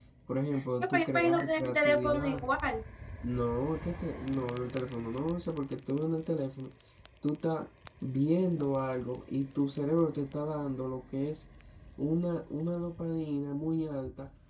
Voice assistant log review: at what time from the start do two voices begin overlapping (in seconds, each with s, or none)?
0.9 s